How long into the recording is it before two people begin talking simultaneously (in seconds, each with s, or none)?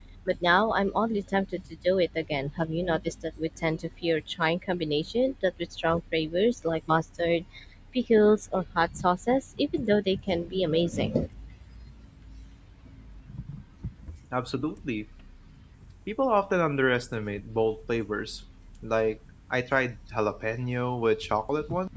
none